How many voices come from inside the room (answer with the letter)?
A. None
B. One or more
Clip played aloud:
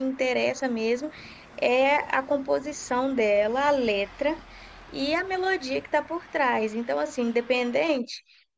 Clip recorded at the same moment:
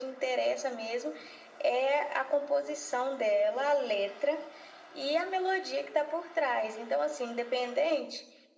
A